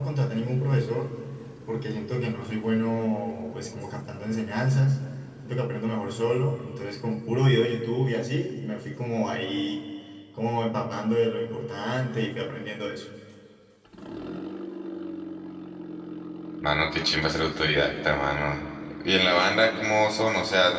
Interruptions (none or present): none